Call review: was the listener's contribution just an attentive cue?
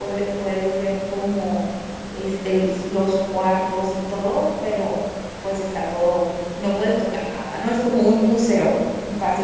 No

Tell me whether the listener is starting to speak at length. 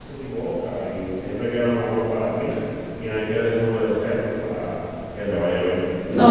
Yes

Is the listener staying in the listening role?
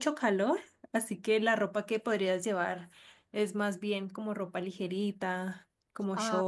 No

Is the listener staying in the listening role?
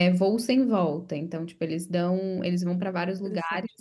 Yes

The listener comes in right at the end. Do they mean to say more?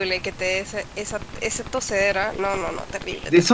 Yes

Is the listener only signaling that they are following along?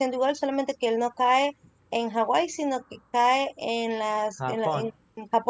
Yes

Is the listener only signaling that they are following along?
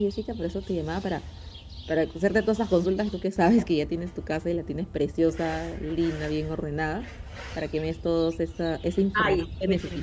No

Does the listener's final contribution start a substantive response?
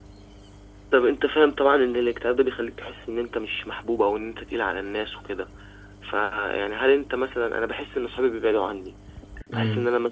No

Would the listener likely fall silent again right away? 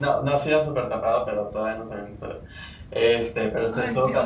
Yes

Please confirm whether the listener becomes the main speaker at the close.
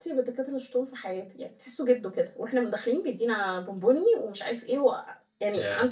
No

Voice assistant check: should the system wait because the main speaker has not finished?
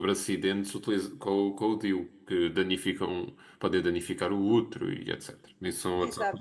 No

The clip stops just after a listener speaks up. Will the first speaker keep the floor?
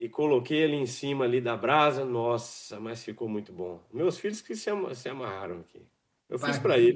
No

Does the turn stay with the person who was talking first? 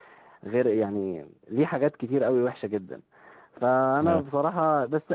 Yes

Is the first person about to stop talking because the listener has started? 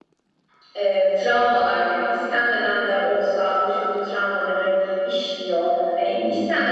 No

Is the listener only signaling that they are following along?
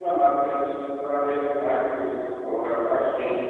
No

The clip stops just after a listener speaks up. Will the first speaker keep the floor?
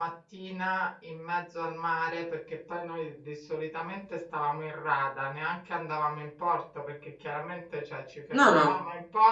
Yes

